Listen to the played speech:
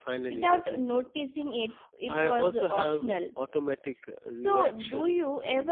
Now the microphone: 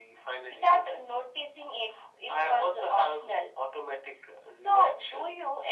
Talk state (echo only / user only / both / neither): echo only